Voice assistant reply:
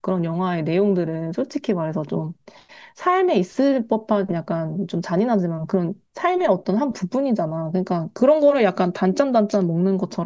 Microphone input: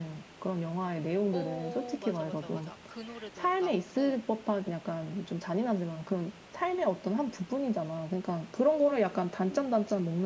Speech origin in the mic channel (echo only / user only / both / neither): both